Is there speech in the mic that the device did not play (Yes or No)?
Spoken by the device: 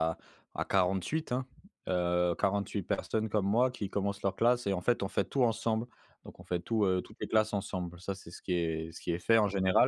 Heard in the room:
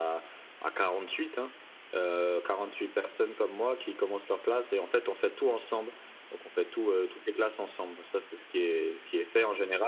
No